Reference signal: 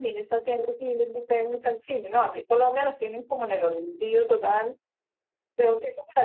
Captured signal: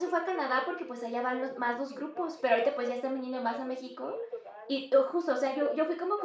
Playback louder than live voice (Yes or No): No